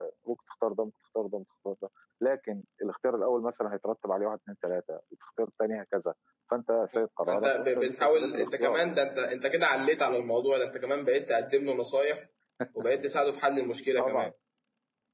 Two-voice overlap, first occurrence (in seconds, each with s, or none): 7.3 s